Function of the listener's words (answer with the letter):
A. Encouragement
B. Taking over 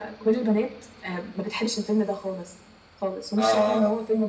A